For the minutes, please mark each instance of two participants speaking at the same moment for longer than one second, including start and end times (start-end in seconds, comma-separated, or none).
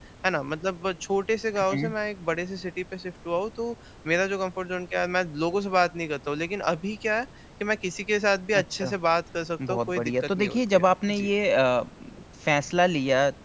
9.7-11.3